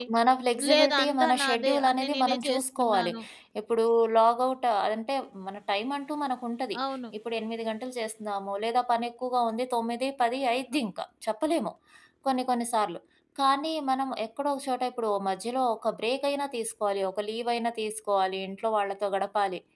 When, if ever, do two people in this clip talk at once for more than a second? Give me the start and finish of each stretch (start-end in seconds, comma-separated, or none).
0.7-3.1